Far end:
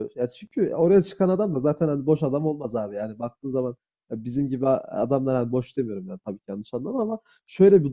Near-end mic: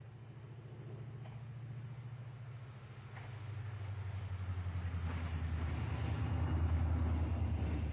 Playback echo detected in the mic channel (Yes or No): No